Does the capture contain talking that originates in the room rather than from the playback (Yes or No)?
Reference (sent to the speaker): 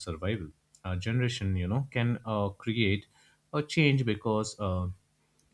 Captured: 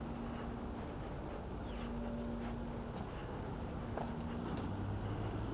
No